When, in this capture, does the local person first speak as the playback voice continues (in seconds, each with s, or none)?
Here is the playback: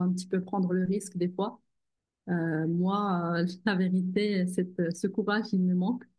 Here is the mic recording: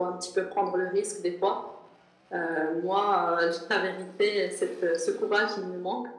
none